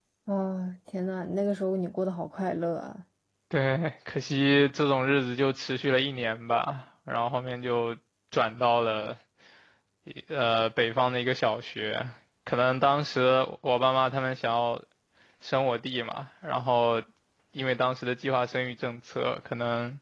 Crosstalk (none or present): none